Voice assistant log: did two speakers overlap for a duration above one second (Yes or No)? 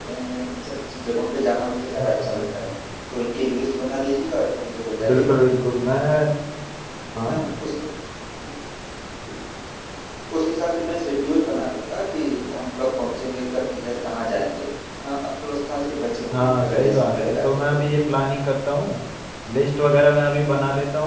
Yes